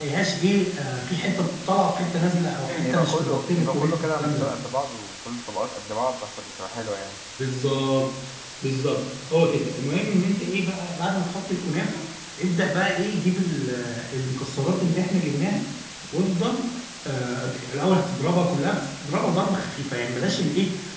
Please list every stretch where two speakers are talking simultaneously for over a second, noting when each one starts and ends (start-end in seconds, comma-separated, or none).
2.7-4.5